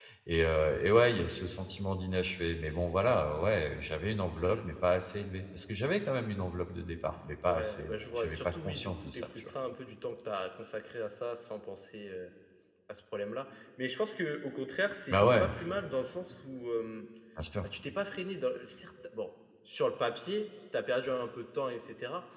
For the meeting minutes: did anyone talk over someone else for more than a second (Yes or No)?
Yes